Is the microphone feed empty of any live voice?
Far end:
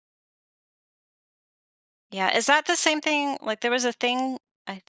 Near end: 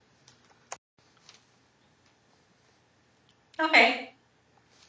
No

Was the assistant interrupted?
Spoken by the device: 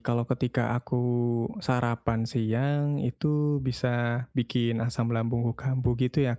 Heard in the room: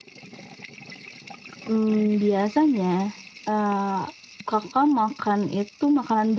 Yes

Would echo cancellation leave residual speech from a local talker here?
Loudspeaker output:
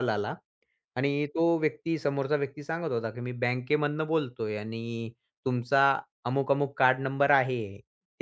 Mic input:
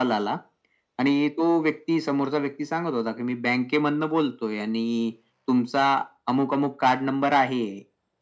No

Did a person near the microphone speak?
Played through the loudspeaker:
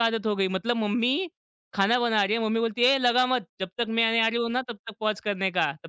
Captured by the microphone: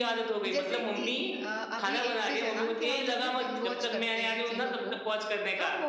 Yes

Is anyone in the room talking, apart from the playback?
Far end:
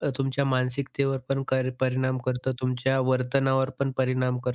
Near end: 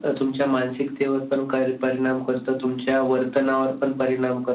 No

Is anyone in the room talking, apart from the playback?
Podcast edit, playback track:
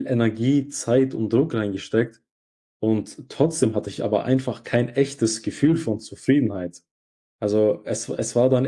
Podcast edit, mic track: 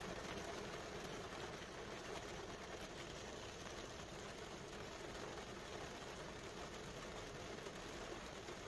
No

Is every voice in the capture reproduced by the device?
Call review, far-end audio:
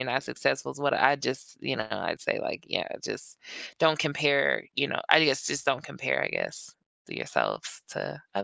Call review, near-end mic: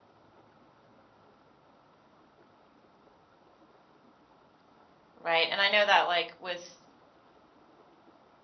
No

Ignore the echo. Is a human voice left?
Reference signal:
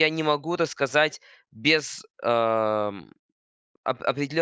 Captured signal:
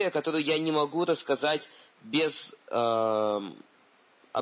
No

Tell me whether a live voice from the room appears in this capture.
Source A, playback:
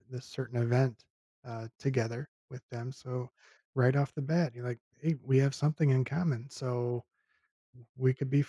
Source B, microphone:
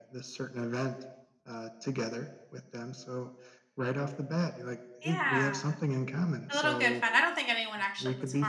Yes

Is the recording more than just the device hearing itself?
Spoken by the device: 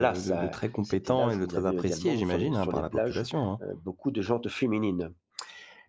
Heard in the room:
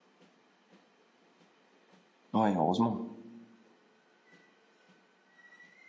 Yes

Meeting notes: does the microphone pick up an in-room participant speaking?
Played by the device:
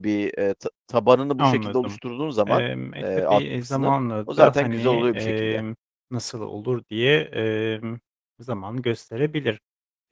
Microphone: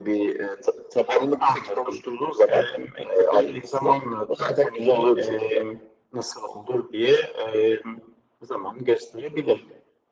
No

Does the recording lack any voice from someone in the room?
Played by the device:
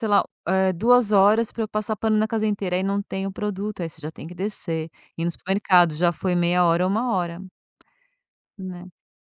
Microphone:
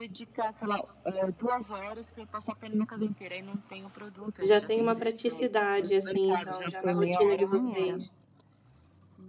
No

